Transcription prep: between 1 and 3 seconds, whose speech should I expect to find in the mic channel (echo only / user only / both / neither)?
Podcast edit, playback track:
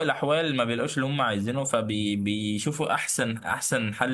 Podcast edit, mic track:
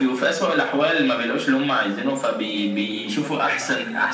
both